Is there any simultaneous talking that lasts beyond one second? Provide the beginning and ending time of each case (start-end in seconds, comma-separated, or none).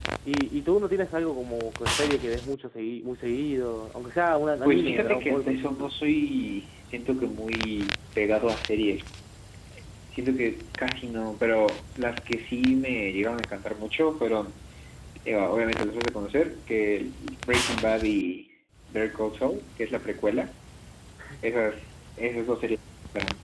4.6-5.9